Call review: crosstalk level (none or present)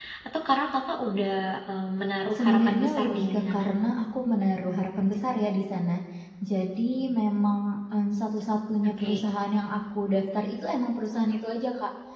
present